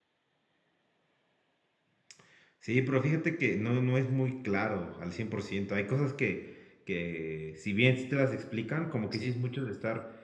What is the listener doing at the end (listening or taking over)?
listening